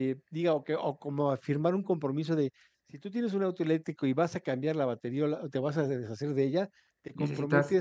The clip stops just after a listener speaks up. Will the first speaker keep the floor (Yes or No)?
Yes